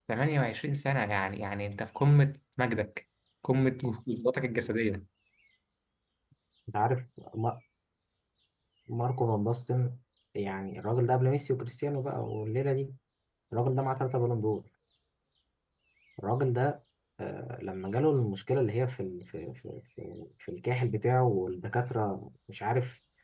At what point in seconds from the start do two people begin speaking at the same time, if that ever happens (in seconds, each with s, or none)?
none